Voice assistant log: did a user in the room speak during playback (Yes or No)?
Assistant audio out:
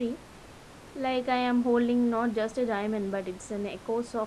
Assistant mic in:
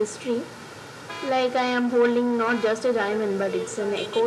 Yes